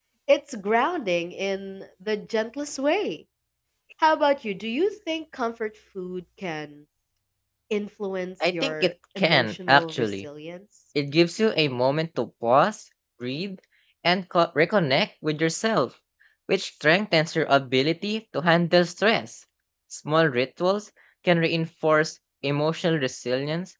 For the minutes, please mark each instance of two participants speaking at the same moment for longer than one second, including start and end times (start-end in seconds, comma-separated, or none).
8.5-10.2